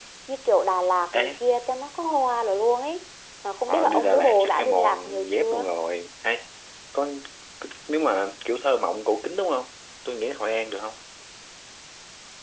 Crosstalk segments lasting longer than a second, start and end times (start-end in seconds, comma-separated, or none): 3.7-5.7